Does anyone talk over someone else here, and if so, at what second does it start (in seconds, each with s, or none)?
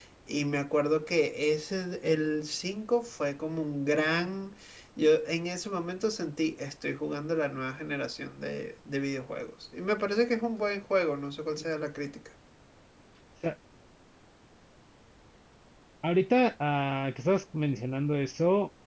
none